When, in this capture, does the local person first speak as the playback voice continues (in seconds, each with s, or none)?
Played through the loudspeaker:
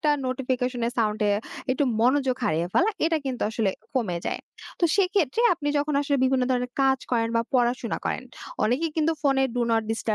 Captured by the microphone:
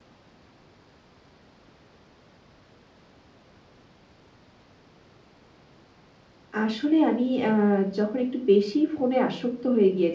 6.6 s